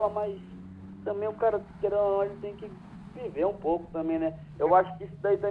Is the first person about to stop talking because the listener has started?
No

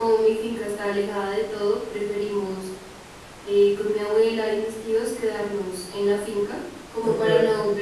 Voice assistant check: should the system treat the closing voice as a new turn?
No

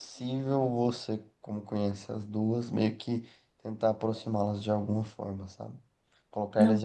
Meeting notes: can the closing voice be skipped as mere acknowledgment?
Yes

